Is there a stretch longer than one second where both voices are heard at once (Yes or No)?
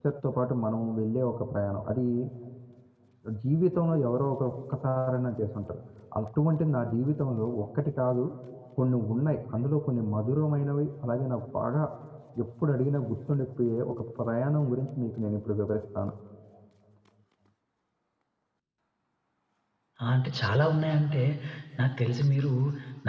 No